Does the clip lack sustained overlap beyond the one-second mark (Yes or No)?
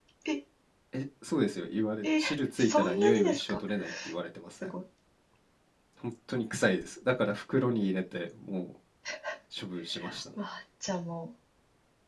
No